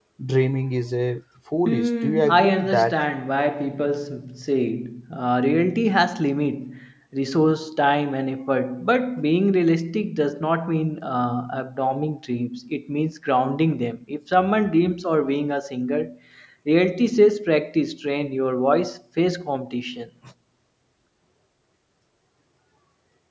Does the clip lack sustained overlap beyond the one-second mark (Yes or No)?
No